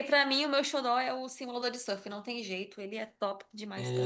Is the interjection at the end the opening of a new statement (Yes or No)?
Yes